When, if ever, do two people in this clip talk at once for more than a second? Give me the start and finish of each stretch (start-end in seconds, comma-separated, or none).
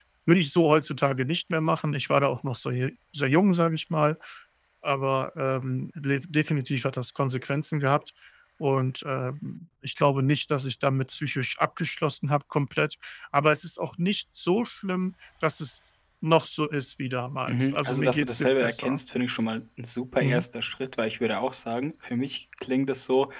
17.5-19.0